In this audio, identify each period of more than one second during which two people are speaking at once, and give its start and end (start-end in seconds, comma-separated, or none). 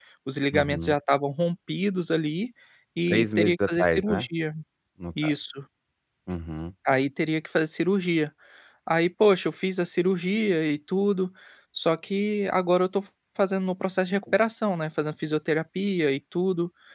3.1-4.3